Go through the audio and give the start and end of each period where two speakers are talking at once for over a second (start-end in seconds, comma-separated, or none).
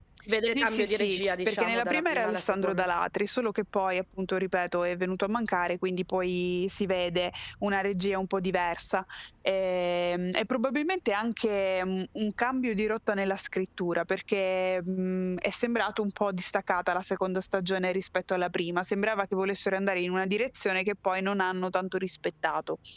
0.5-2.9